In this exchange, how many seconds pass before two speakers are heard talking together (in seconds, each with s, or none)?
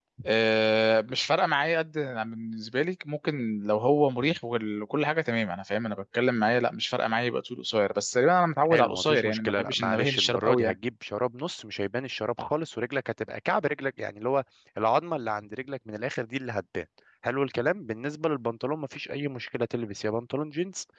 8.7 s